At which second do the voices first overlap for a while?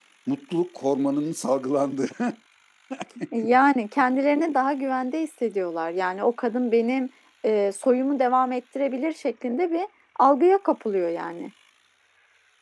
none

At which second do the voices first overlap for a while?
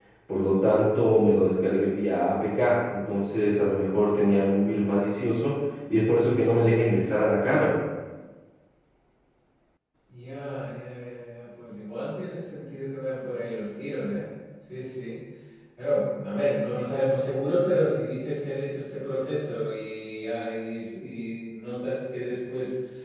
none

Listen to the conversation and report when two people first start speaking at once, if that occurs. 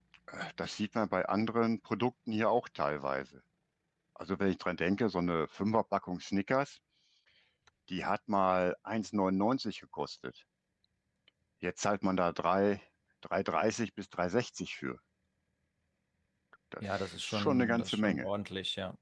16.9 s

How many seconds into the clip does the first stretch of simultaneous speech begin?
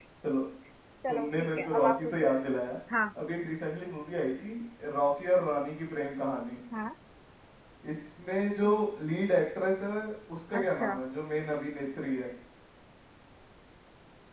1.1 s

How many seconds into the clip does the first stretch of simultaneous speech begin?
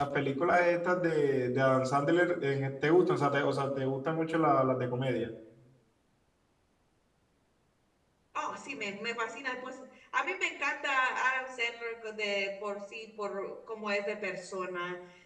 none

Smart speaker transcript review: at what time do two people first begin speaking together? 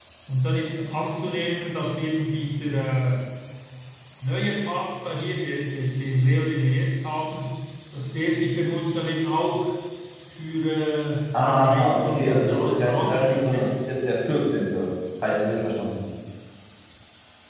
11.3 s

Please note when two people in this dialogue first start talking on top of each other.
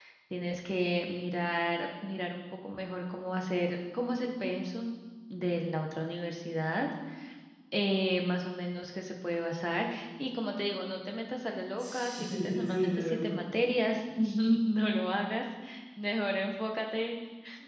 11.8 s

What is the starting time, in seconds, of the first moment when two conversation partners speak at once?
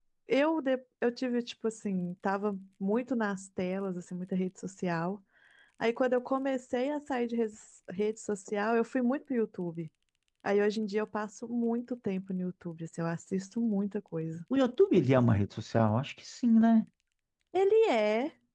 none

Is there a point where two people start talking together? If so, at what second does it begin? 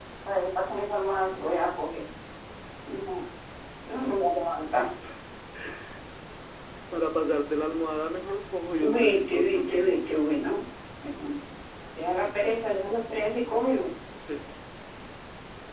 8.8 s

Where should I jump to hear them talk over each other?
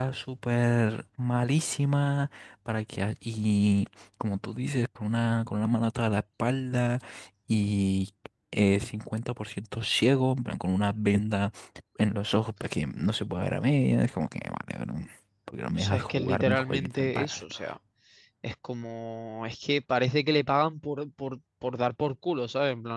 15.8 s

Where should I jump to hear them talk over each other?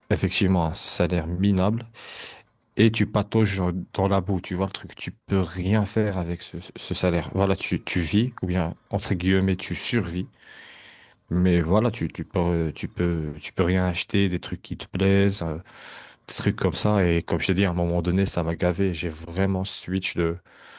none

